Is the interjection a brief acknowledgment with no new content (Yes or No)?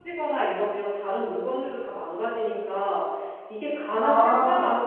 Yes